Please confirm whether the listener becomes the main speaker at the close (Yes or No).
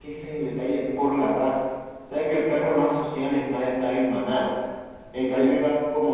No